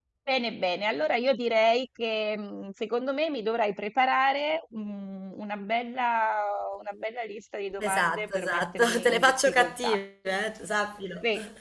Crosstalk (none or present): present